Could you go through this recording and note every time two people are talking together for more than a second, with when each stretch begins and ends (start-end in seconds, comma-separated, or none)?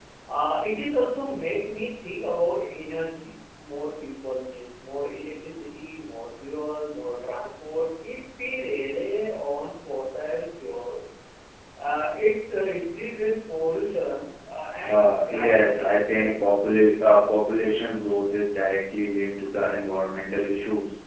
14.8-16.3